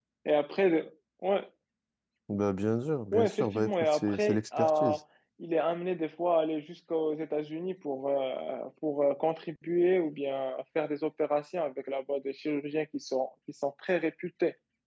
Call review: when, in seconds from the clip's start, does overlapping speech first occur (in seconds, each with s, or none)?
3.1 s